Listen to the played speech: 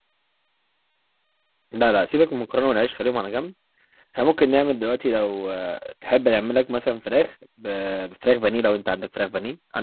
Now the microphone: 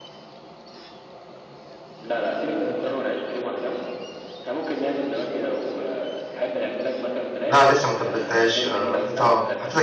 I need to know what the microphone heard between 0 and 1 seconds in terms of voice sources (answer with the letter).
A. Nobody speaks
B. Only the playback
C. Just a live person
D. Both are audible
A